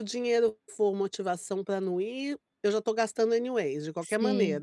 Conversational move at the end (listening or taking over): taking over